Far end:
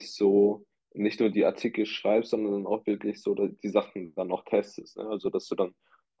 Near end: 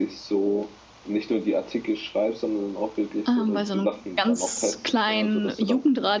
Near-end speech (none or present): present